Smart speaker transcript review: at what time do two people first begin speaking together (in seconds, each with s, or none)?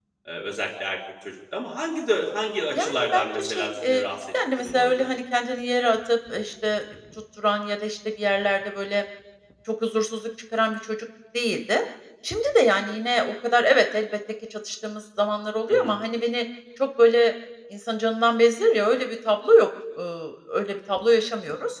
2.7 s